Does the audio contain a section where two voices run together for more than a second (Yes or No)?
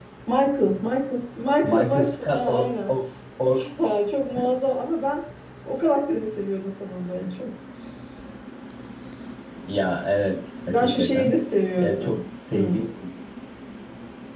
Yes